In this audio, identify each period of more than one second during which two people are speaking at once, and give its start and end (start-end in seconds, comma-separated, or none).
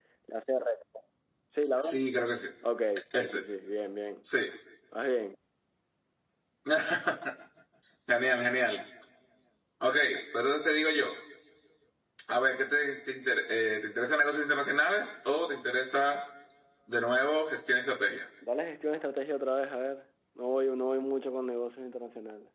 none